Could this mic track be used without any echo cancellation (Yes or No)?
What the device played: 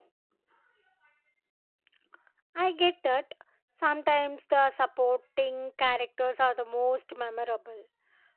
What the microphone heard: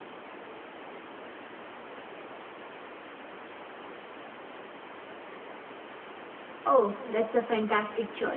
Yes